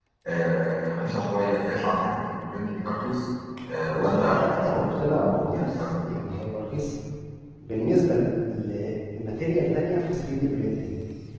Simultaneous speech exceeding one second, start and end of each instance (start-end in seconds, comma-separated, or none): 3.9-6.0